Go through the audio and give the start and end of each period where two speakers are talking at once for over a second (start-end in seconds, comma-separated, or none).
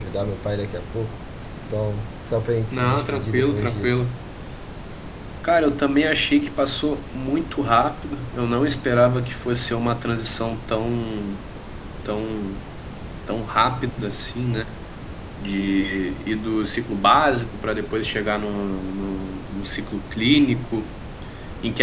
2.7-4.1